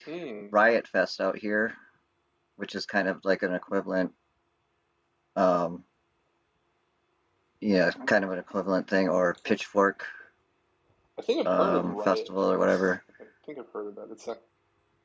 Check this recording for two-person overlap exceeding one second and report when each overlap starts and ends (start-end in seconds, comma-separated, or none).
11.5-12.8